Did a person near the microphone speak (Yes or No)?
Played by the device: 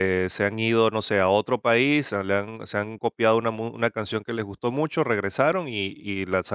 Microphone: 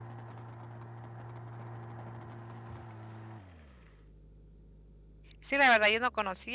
Yes